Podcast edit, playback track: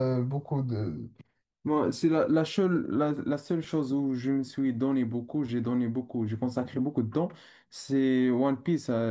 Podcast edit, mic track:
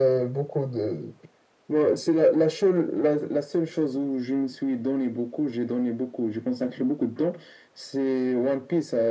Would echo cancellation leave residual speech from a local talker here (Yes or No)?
No